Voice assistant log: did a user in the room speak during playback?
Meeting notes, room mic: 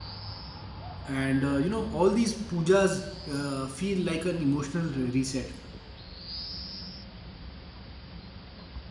Yes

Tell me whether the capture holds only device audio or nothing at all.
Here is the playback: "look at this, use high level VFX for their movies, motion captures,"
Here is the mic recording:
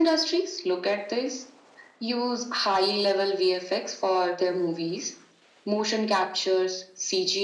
Yes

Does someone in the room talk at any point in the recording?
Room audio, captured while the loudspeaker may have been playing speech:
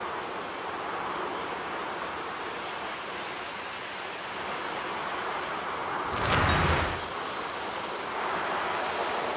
No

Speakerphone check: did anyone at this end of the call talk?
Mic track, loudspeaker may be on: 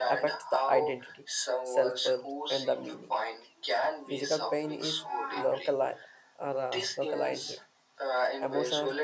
Yes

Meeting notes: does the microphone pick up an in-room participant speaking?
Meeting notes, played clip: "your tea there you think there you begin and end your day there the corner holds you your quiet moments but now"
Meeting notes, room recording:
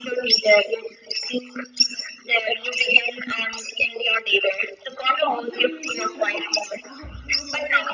Yes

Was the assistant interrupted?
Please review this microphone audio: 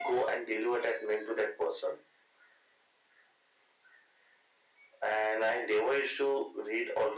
No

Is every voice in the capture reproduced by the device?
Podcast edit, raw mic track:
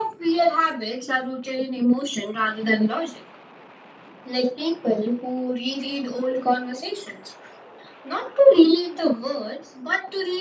Yes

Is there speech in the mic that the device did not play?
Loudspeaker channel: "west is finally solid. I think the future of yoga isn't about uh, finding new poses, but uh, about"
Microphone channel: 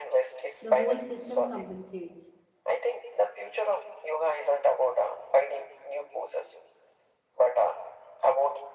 Yes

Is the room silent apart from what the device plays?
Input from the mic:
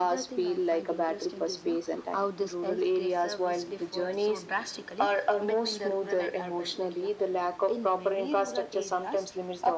Yes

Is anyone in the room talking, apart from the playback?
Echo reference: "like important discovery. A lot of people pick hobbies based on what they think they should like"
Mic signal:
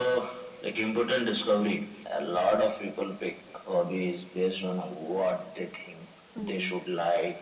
Yes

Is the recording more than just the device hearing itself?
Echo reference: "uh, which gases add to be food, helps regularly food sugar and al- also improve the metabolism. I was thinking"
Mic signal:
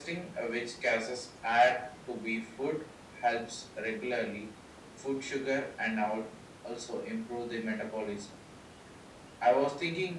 No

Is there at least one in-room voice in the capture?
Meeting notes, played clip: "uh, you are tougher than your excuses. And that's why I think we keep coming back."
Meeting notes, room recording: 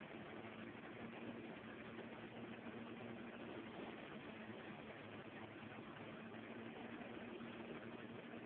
No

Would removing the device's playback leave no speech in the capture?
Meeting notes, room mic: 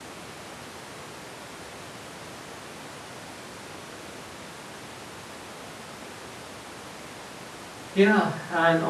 No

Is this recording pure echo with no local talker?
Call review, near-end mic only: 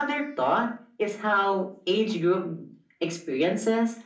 Yes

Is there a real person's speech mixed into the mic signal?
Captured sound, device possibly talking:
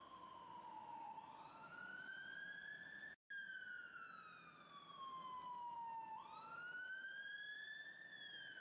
No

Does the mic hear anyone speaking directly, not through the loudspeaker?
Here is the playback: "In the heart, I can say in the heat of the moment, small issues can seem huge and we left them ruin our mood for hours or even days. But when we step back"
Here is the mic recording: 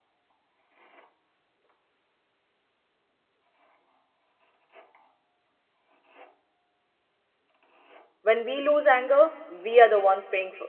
Yes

